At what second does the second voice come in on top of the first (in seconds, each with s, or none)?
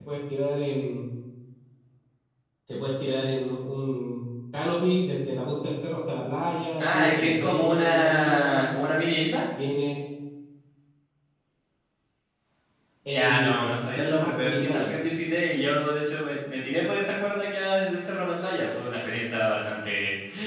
6.8 s